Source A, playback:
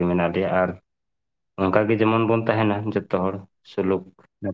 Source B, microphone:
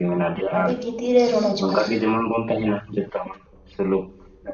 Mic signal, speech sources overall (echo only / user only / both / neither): both